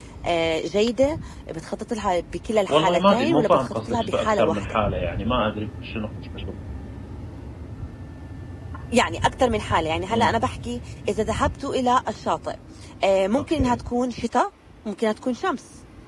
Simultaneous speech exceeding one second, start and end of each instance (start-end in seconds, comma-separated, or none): 2.7-4.8